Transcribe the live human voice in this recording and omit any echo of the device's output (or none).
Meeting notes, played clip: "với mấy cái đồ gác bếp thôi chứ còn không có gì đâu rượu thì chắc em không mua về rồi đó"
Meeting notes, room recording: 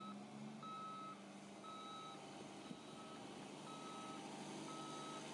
none